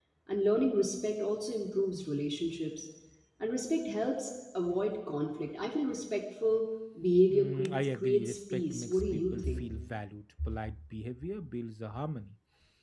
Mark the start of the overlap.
7 s

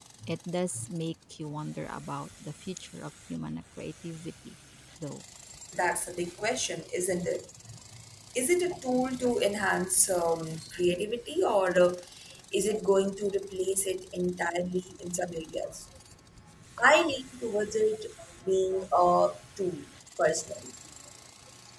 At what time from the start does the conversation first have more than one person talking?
none

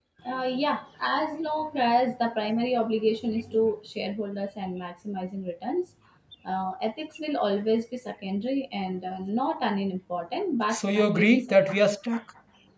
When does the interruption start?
11 s

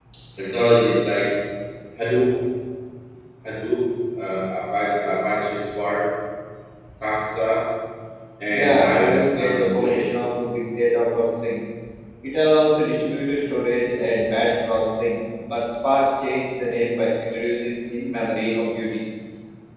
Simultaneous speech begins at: 9 s

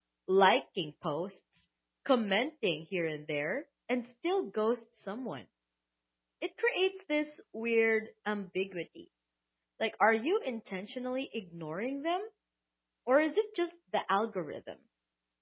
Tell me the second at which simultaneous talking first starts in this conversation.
none

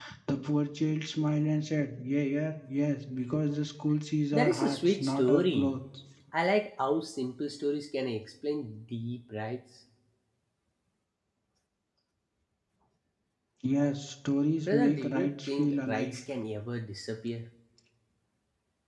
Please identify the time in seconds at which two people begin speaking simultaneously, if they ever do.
4 s

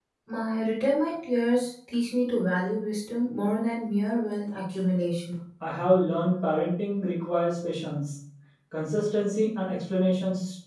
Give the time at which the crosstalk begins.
none

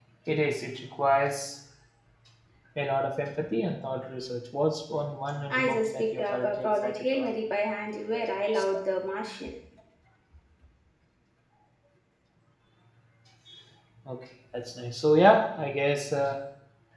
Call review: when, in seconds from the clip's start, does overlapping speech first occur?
6 s

